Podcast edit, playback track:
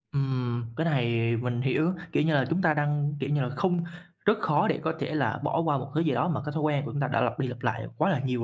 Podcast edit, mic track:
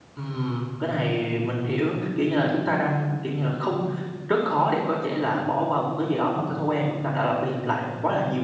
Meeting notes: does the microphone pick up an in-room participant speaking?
No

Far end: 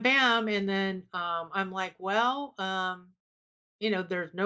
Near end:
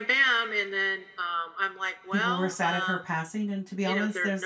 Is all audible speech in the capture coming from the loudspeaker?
No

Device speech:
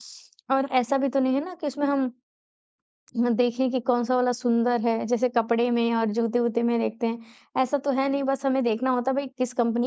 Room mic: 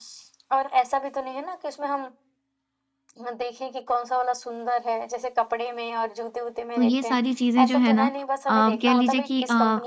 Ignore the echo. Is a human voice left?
Yes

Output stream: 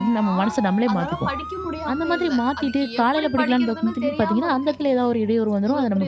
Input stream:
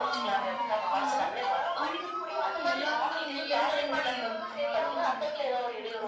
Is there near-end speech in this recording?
Yes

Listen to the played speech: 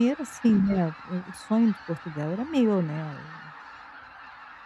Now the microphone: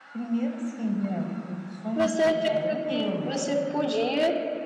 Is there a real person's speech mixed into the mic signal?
Yes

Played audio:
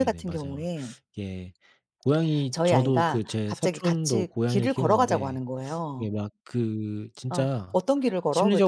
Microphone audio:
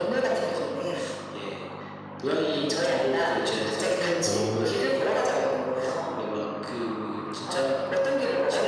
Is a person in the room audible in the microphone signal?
Yes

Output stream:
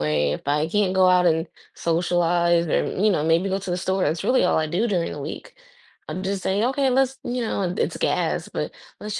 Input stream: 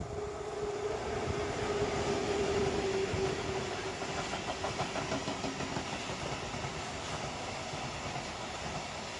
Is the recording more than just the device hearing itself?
No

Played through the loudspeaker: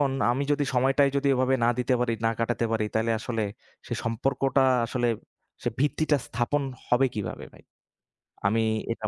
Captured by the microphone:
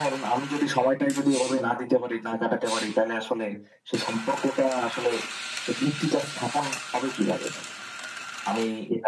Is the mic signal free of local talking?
Yes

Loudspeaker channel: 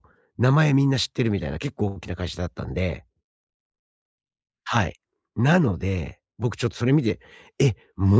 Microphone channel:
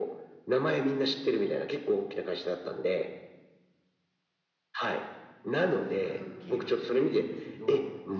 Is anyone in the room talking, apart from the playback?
Yes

